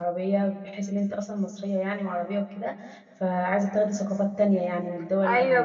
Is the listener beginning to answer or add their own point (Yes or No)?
Yes